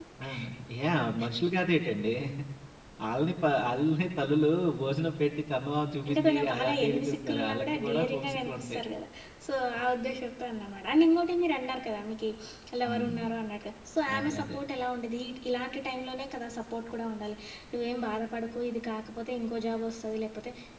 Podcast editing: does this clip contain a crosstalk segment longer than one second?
Yes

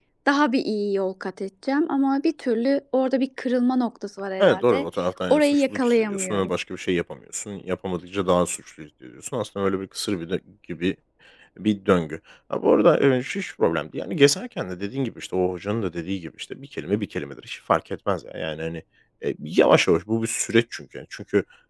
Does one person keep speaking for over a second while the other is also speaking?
Yes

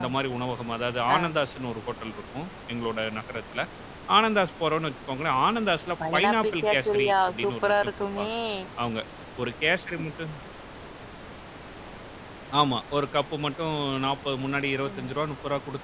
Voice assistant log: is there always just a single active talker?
No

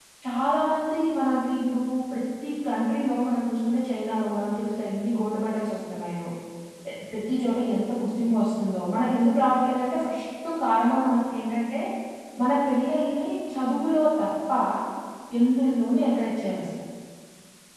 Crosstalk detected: No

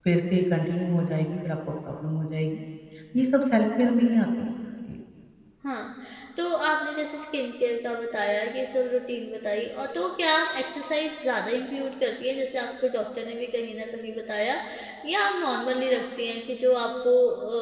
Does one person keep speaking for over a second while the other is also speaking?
No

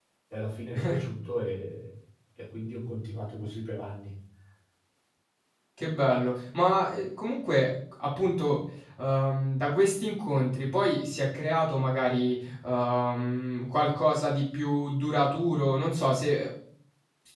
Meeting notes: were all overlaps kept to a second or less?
Yes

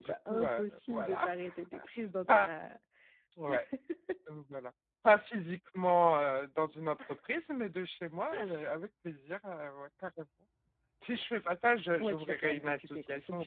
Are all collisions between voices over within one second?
No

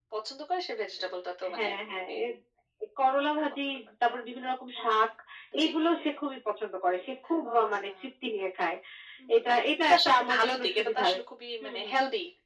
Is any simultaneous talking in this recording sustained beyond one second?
Yes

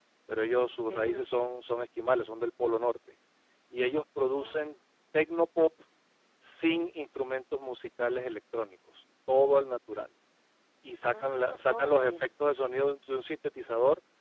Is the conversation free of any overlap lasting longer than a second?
No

